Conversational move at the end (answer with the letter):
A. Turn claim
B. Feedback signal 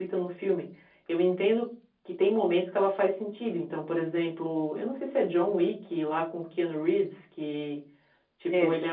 B